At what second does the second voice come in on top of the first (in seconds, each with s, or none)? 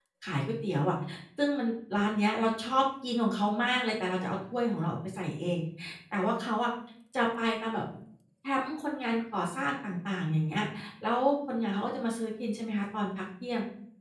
none